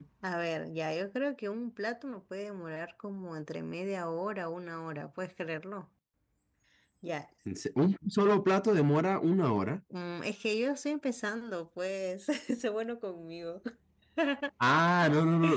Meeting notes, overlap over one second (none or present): none